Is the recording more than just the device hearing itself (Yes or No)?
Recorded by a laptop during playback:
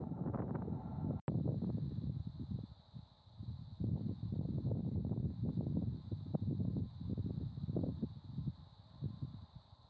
No